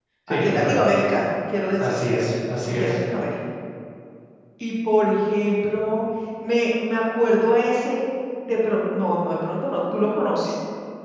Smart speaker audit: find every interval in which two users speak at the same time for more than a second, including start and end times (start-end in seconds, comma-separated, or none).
none